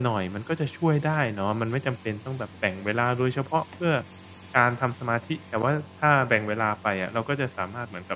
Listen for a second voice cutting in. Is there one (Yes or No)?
No